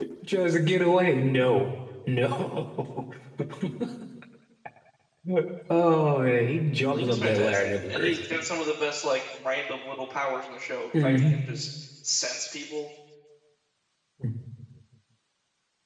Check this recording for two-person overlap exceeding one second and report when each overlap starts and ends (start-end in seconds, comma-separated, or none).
6.9-8.1